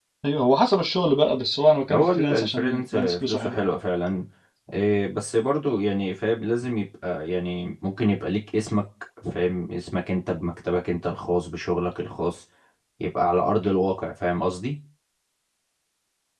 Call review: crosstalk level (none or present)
present